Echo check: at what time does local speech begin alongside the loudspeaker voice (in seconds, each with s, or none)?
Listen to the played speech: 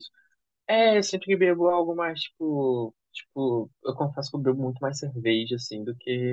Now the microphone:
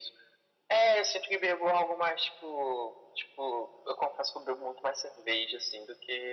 none